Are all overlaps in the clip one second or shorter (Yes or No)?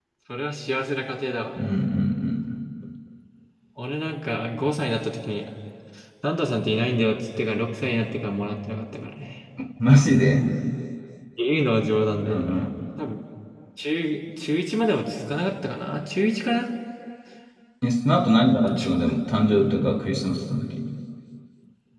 Yes